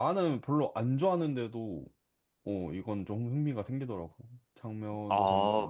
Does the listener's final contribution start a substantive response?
Yes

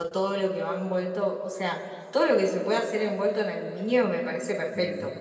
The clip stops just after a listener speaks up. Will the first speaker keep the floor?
Yes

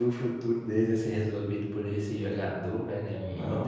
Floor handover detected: Yes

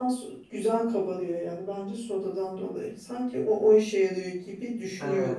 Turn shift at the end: Yes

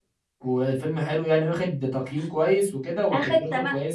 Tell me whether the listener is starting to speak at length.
Yes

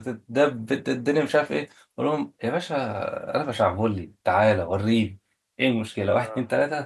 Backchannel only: Yes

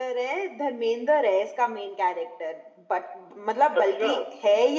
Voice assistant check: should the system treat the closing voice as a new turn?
No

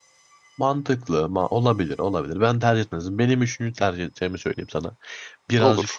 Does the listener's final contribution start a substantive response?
No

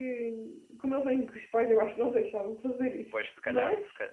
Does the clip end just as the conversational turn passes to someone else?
Yes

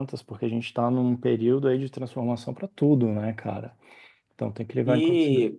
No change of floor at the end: No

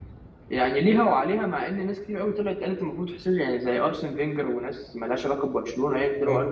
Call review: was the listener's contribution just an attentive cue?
Yes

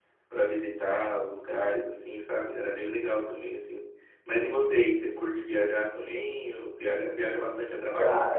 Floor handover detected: Yes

